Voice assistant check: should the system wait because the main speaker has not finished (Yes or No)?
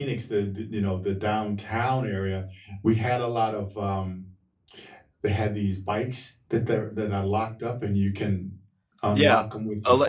No